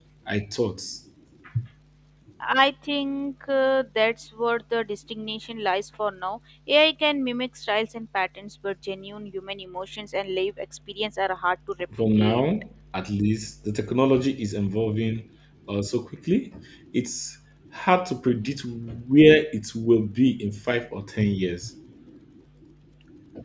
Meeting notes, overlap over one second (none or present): none